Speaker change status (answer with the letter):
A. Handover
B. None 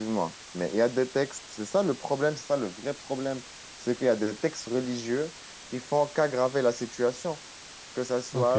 A